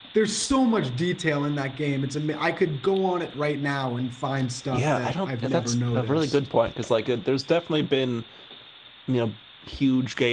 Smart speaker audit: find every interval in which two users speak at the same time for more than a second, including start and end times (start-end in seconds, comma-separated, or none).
4.7-6.4